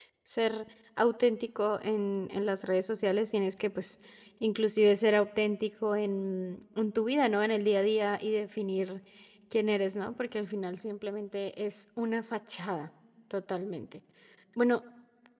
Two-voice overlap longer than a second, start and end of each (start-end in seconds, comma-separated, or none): none